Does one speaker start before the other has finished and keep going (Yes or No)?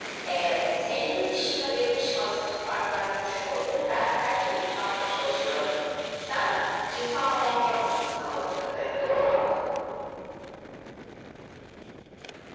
Yes